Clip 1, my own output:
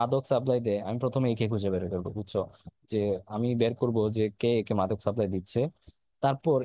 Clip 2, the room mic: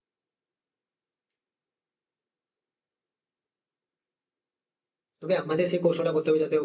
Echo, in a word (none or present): none